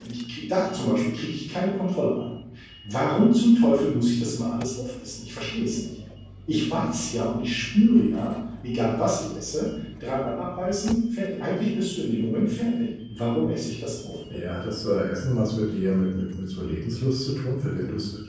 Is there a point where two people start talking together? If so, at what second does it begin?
none

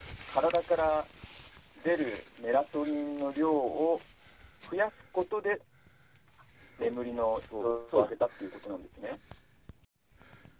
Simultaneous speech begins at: 7 s

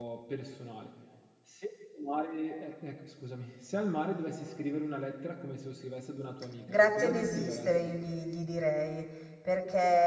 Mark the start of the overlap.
7 s

